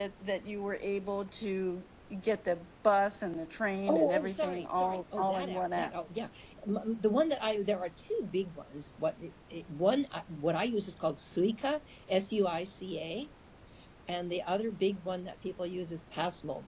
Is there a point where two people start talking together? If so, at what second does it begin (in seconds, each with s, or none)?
3.9 s